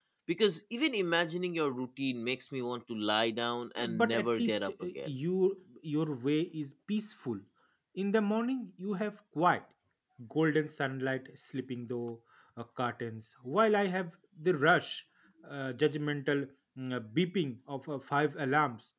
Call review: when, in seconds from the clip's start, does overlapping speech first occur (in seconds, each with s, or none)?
3.8 s